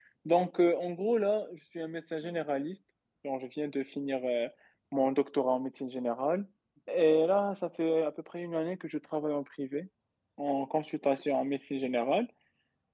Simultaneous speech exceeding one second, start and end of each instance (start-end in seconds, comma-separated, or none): none